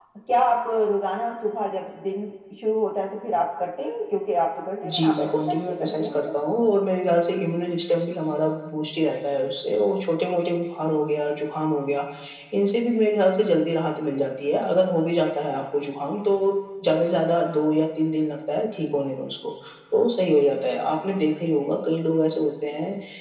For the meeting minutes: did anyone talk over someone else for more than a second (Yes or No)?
Yes